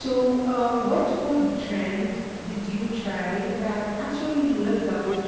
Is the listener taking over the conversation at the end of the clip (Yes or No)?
Yes